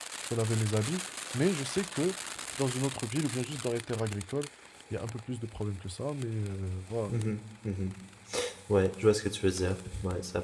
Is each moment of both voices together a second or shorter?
Yes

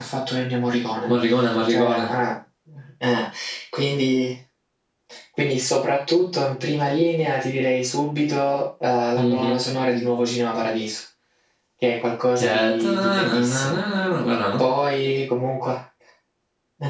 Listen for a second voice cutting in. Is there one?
Yes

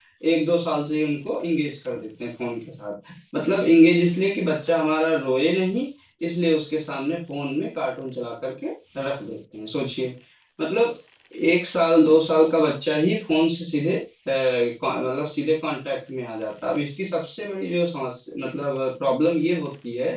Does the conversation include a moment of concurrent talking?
No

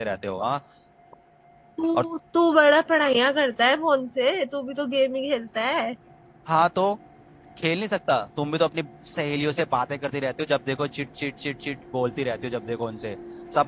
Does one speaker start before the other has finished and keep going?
No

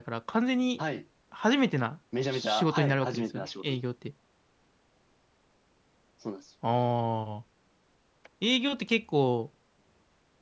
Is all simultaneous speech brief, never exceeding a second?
No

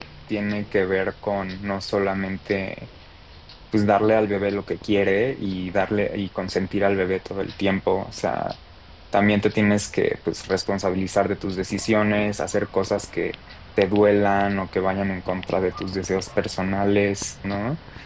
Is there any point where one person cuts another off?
No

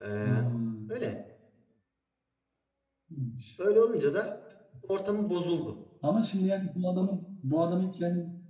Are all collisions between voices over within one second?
Yes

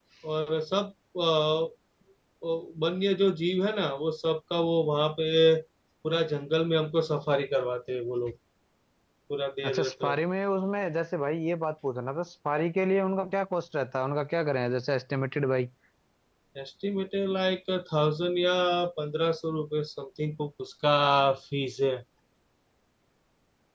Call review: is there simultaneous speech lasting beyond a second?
No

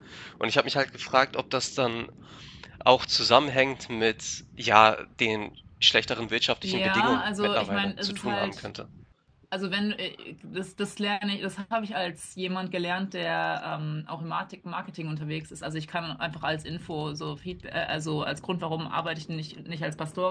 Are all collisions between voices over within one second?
No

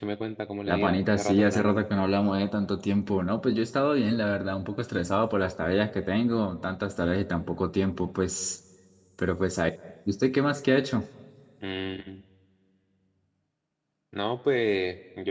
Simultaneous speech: Yes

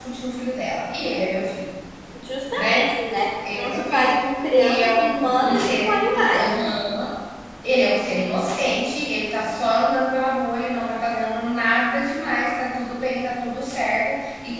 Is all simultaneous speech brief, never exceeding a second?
No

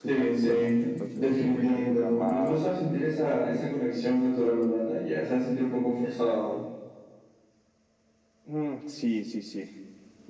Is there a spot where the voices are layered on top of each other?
Yes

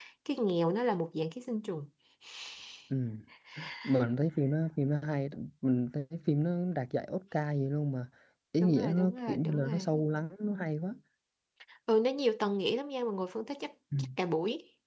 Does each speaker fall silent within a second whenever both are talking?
No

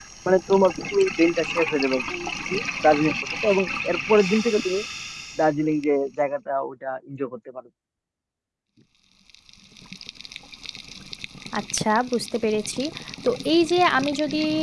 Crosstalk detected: No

